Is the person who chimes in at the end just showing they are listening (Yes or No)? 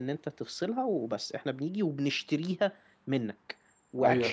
Yes